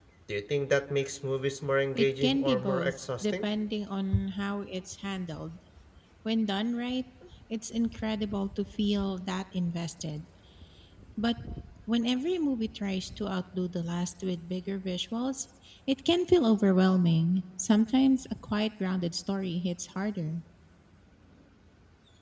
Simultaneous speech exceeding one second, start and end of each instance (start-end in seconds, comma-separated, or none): 1.9-3.5